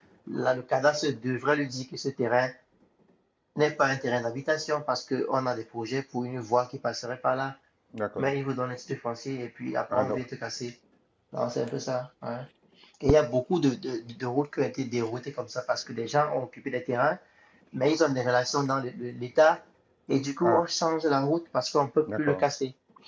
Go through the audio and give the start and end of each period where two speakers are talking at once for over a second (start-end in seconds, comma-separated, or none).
none